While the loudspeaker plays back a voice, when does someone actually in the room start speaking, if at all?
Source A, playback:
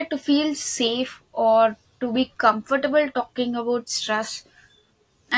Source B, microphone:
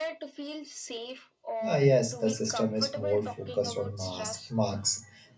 1.7 s

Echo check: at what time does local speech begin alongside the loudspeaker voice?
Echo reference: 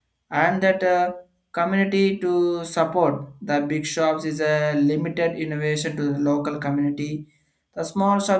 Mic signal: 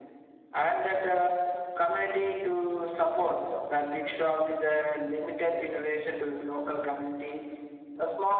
none

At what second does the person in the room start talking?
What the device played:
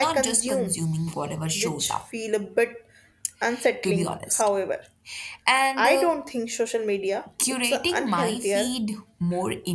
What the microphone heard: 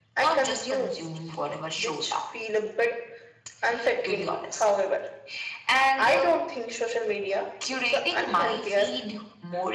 none

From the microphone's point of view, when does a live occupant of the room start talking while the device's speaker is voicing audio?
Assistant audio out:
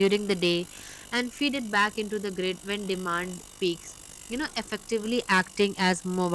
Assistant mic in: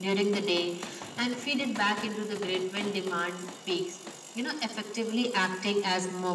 none

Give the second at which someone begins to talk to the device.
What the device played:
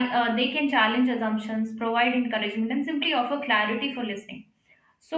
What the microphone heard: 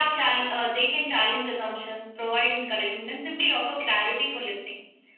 none

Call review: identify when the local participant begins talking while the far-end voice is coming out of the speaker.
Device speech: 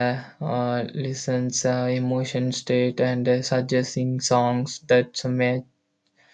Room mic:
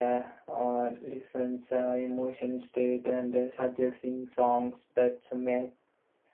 none

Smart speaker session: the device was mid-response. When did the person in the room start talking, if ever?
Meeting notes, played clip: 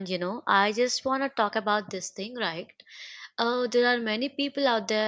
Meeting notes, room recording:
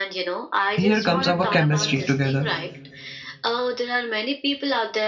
0.8 s

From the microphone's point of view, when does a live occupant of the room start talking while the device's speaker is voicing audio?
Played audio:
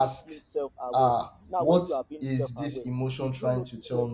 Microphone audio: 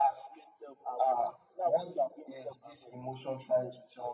none

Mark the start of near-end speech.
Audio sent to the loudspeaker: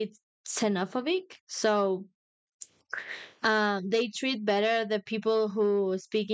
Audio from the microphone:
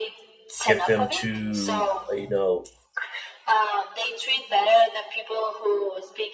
0.7 s

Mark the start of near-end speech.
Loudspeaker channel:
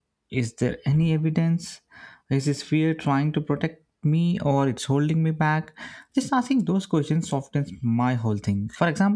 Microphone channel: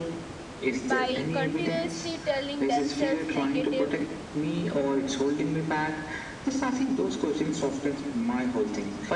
0.8 s

